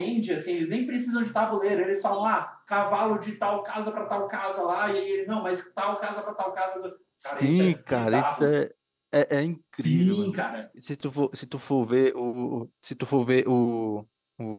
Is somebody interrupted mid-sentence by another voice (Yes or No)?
Yes